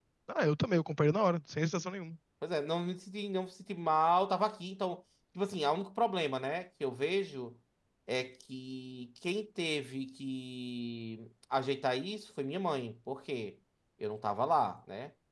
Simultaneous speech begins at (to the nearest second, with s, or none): none